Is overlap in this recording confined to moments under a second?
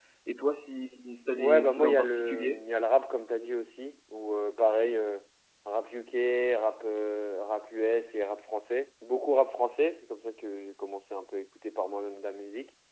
No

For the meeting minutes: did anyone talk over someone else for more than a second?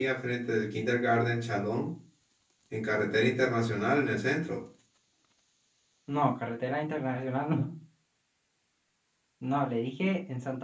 No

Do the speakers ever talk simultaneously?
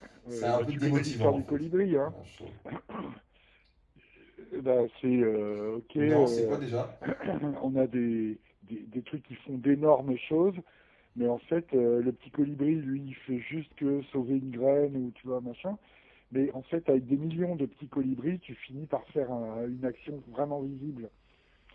Yes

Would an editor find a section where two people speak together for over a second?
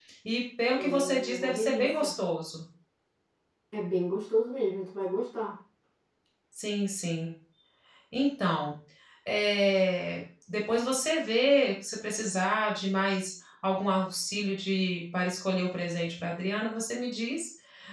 Yes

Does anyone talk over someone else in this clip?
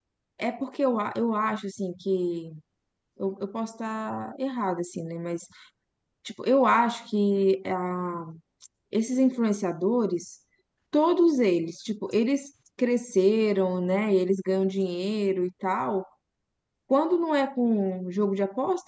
No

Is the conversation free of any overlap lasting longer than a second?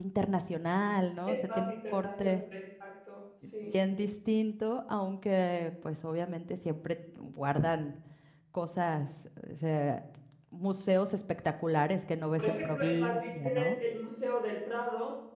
No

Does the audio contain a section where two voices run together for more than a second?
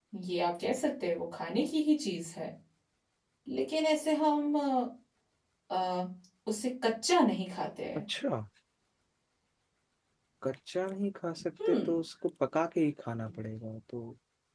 No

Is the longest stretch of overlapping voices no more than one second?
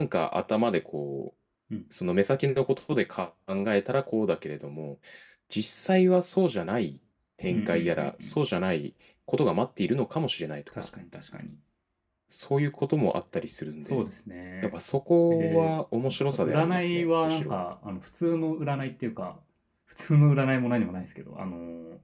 No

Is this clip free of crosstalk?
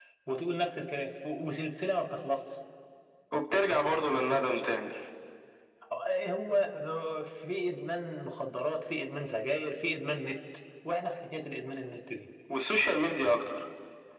Yes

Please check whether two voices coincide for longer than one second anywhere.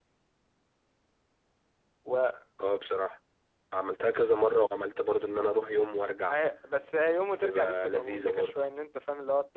Yes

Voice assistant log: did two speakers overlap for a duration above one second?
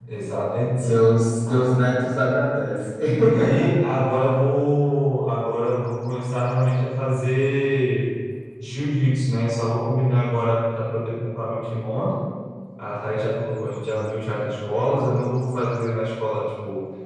No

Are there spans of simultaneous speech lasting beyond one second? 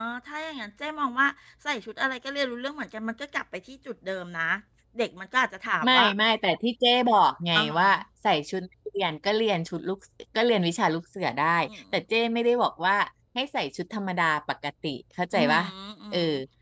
No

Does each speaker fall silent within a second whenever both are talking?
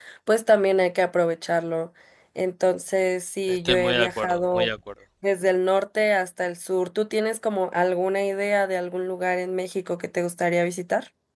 No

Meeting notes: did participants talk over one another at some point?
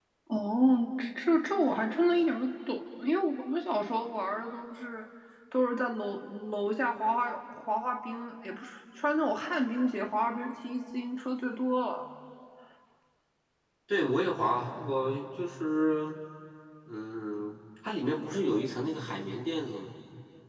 No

